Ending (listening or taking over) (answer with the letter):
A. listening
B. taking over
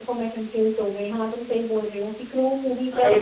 B